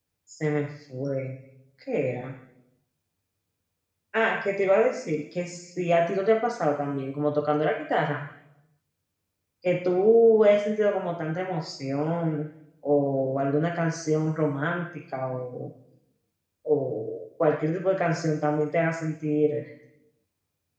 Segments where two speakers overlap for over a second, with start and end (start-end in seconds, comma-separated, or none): none